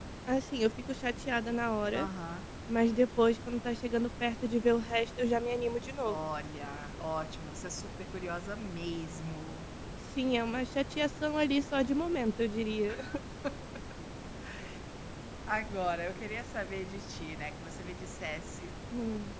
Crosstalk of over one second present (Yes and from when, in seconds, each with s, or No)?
No